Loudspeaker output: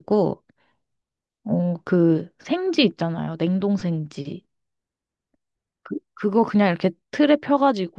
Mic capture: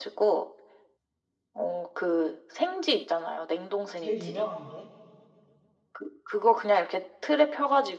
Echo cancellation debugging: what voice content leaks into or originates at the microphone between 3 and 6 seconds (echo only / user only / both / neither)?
both